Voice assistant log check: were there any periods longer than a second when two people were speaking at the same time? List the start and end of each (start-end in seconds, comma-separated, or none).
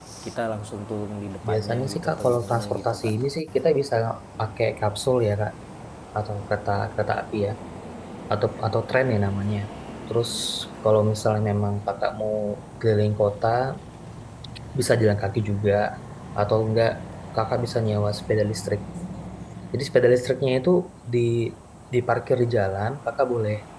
1.5-3.2